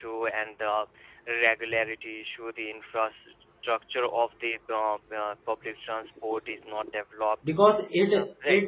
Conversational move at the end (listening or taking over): taking over